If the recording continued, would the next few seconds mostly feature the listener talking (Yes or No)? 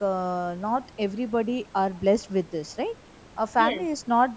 No